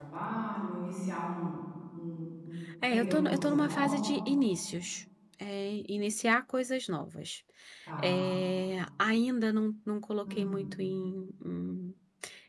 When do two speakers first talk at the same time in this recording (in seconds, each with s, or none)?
2.8 s